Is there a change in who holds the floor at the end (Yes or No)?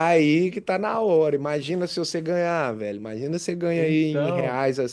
No